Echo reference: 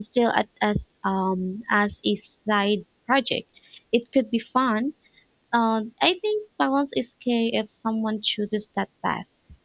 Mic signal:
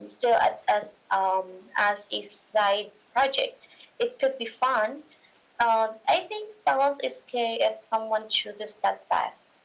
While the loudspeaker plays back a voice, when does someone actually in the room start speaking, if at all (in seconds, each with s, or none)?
none